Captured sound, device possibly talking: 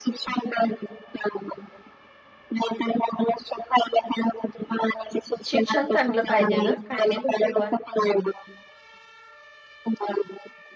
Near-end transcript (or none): शिक्षण चांगलं पाहिजे ग काय नाही बरोबर हम्म.